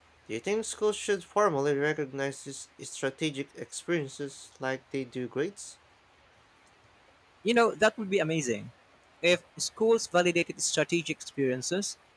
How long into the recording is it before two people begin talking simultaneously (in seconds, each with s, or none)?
none